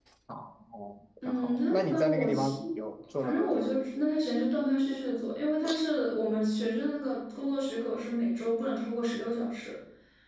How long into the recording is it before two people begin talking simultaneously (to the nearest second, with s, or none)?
1 s